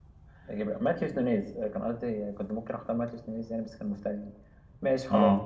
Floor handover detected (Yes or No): No